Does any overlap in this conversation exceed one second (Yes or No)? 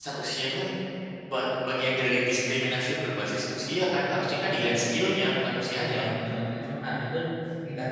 No